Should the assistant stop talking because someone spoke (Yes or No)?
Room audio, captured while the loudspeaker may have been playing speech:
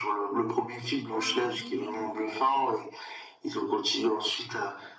Yes